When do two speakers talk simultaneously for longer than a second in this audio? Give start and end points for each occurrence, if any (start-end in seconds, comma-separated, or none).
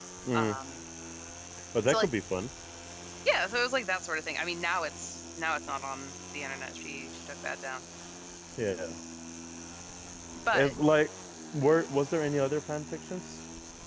none